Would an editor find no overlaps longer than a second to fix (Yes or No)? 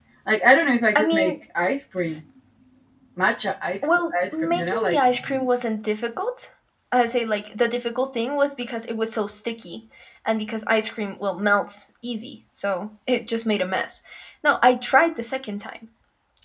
No